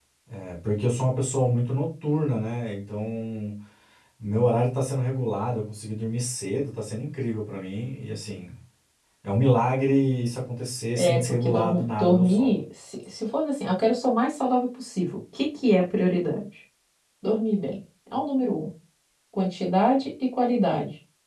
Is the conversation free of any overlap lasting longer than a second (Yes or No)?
No